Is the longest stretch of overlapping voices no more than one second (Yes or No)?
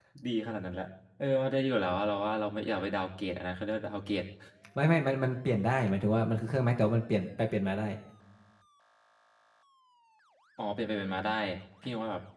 Yes